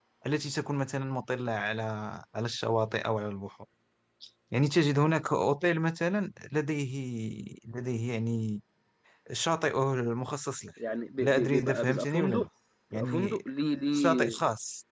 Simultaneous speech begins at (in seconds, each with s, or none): 11.2 s